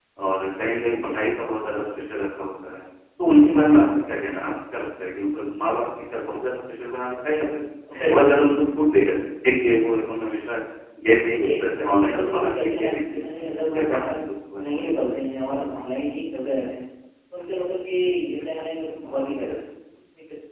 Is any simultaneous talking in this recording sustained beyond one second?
Yes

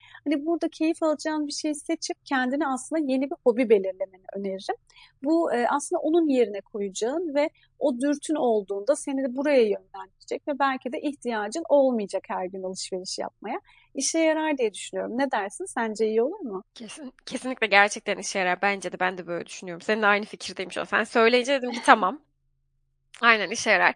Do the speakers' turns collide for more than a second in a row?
No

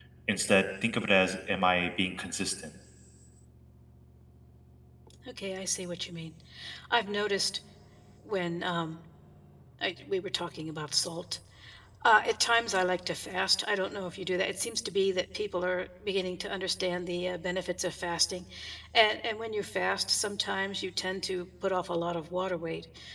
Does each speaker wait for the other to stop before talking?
Yes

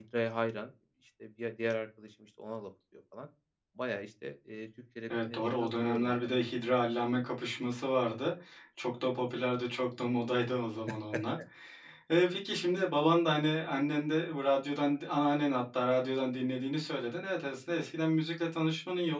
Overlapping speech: Yes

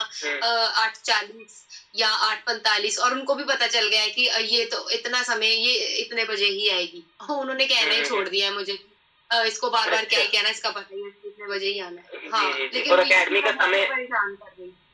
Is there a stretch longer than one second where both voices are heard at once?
Yes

